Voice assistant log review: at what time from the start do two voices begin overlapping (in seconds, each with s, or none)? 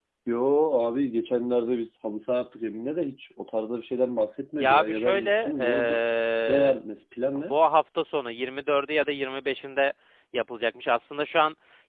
4.6 s